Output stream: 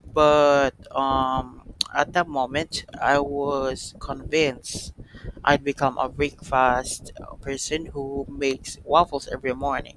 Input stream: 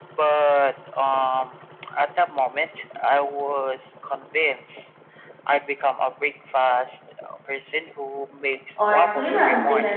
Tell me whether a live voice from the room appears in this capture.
Yes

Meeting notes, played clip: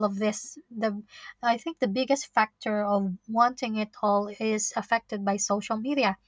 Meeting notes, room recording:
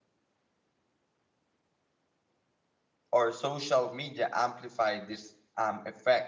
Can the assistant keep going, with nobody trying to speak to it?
No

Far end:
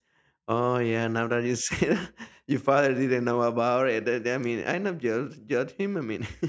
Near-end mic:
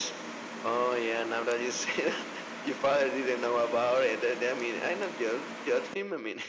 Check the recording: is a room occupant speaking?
No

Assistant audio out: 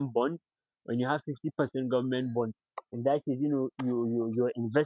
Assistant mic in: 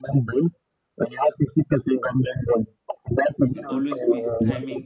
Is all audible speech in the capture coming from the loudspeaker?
No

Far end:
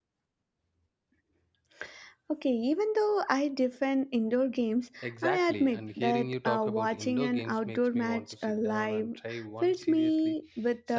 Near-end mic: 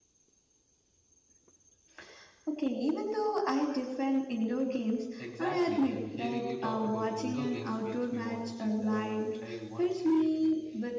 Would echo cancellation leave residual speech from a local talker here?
No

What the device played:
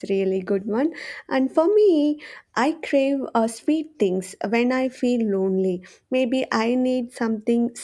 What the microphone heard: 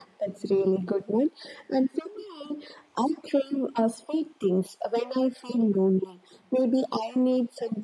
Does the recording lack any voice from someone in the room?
Yes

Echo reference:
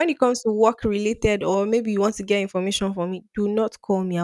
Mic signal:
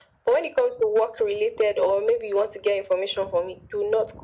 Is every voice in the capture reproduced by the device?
Yes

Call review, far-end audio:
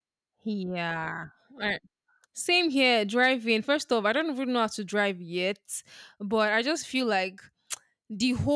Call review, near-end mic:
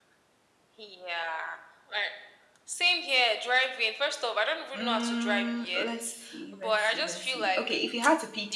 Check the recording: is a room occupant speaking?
Yes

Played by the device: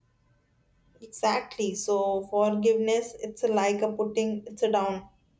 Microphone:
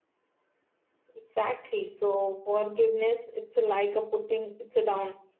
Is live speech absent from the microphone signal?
Yes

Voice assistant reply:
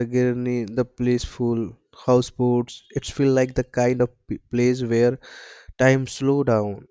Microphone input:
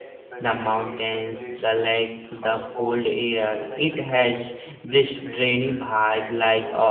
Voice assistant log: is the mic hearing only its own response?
No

